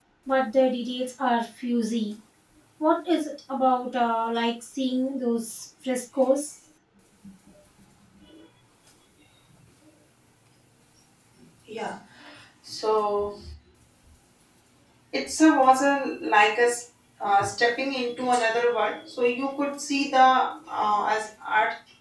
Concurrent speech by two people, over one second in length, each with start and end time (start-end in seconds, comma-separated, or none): none